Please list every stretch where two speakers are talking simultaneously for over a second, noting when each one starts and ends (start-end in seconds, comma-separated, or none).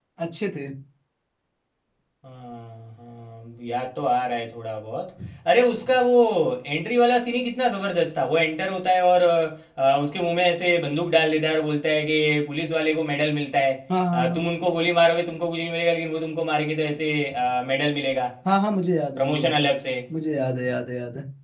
none